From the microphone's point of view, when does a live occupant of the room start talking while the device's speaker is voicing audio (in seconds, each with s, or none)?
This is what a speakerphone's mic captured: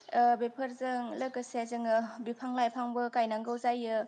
none